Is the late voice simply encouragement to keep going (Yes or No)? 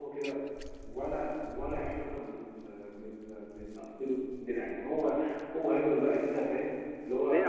No